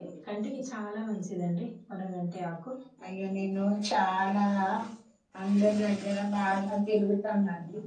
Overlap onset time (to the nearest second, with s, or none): none